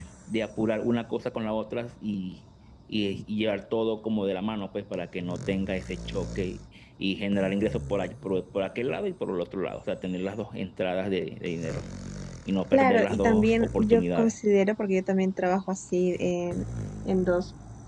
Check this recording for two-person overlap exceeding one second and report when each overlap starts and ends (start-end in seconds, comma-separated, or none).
12.7-14.4